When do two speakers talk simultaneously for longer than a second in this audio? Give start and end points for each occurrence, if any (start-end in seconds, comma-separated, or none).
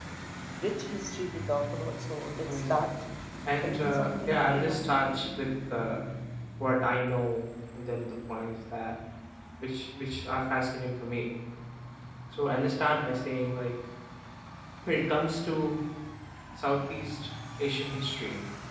3.6-4.8